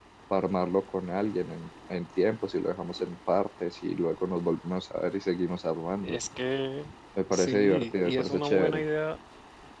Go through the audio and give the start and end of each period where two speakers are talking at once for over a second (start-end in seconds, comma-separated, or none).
7.3-8.8